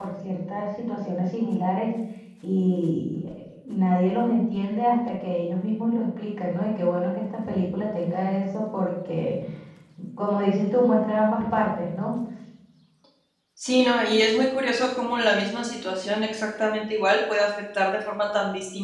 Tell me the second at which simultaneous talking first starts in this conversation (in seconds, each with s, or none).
none